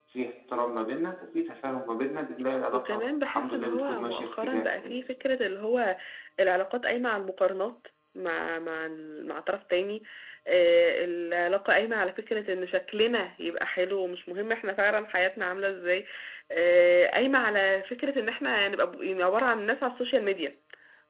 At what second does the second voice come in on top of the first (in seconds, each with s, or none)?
2.7 s